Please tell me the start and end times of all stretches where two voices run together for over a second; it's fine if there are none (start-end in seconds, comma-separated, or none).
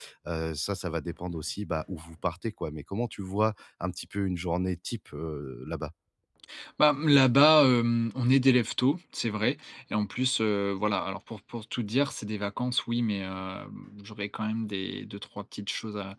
none